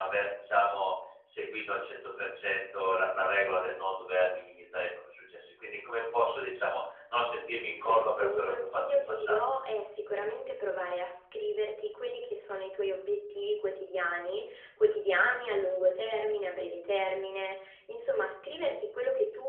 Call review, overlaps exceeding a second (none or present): present